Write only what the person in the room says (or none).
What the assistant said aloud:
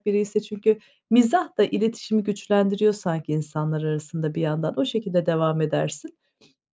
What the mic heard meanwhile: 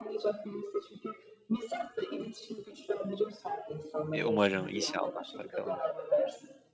E, umarım. İnşallah, bakalım.